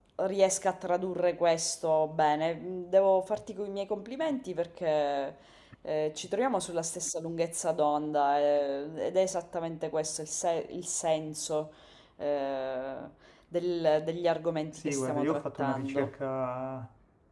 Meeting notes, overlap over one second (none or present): present